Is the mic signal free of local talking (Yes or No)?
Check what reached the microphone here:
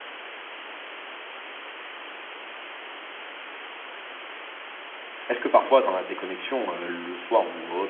No